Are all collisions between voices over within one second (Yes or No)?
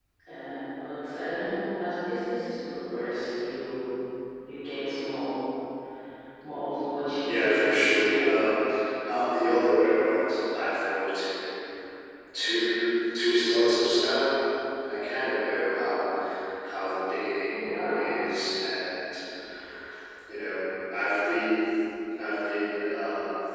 No